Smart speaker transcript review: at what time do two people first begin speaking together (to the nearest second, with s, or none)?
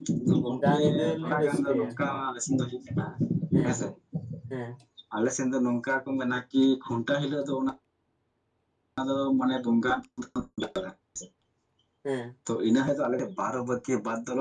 1 s